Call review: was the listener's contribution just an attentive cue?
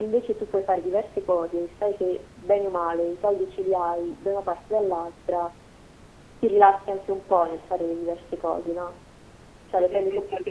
No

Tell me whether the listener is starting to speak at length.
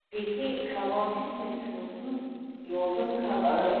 Yes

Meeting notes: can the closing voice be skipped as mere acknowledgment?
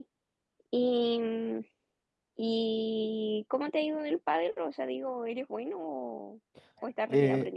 No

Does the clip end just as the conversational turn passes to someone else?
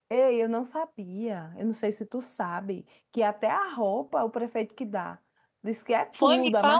Yes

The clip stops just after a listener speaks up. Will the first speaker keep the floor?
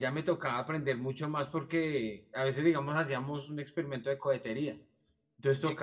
Yes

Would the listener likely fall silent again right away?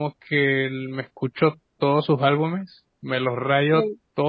Yes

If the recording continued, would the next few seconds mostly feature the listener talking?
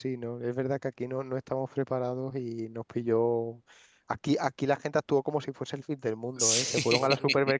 No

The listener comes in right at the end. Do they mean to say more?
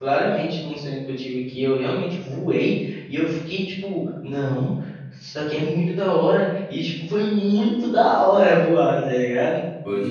Yes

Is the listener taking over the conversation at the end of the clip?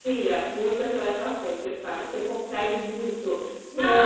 Yes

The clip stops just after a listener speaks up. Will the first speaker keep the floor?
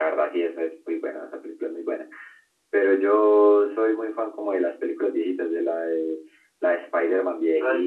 Yes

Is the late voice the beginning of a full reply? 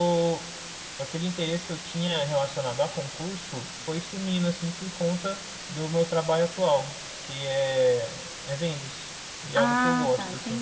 Yes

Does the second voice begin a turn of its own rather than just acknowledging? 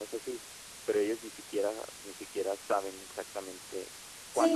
Yes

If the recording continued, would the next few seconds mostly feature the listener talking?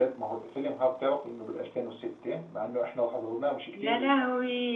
Yes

